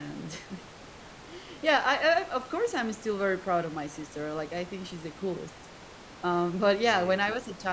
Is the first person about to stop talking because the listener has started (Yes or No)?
No